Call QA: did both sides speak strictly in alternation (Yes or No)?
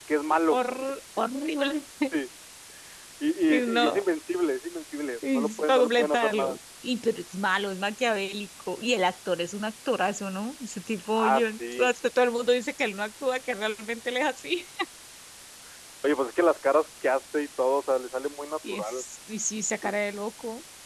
No